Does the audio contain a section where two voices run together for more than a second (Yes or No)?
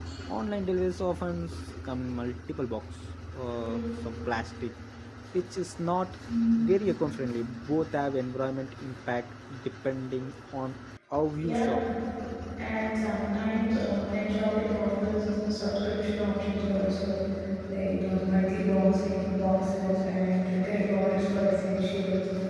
No